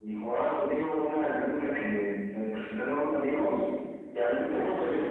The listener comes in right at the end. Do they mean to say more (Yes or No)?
No